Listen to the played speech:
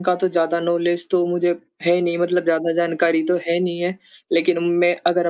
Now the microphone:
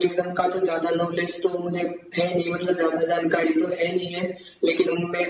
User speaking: No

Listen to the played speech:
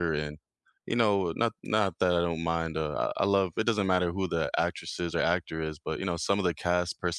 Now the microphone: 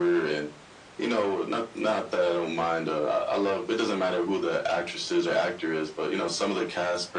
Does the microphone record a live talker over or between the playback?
No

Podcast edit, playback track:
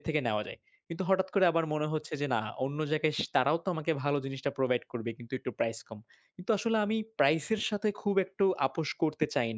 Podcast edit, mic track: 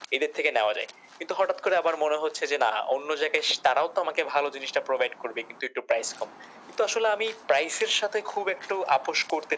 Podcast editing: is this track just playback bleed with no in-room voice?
Yes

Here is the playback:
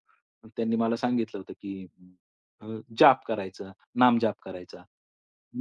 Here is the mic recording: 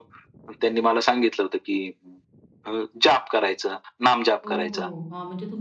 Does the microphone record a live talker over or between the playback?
Yes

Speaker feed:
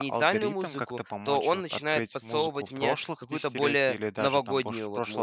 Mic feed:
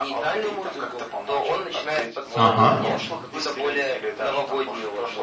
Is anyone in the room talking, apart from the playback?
Yes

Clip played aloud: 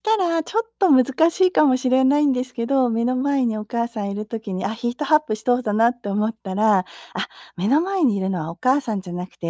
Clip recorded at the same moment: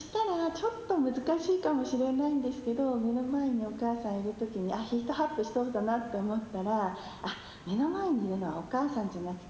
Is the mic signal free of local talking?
Yes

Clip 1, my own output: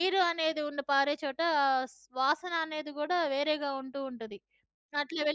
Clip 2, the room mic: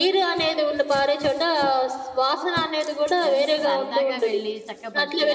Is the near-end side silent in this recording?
No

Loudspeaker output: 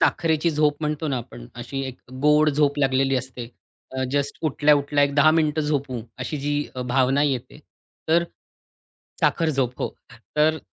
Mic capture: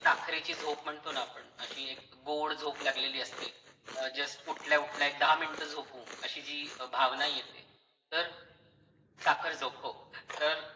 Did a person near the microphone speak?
No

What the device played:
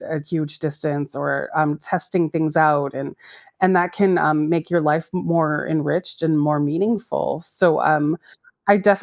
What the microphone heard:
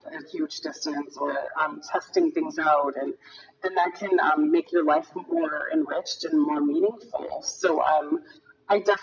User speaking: No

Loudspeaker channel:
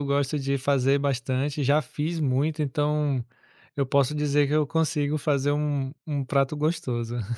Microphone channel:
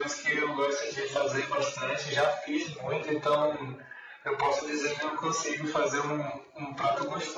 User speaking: No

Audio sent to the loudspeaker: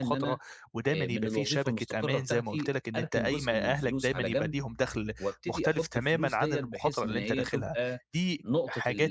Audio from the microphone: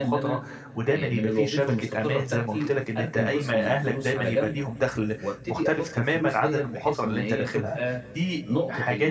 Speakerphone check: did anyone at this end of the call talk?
No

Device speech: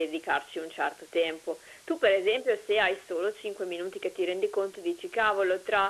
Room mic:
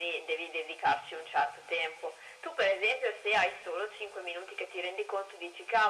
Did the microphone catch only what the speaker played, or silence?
Yes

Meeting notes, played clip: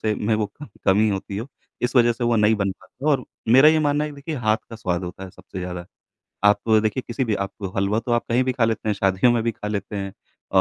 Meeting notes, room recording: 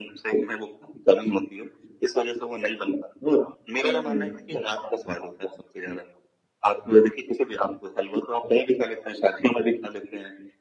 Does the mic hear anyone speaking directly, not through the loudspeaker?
Yes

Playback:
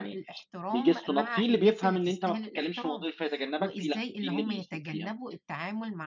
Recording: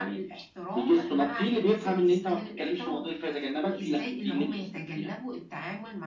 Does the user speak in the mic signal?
No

